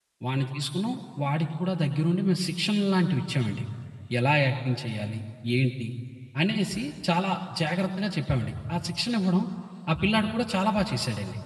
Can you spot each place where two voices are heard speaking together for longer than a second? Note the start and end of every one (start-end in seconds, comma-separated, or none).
none